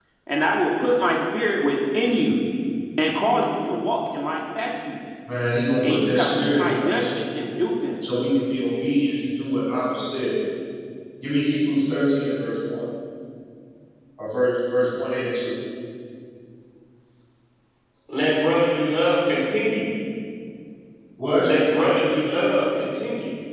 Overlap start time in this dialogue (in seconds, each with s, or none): 5.8 s